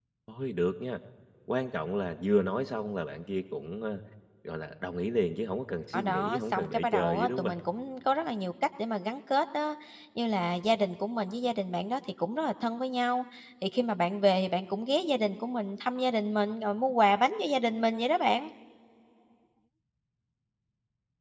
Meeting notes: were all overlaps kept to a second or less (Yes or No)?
No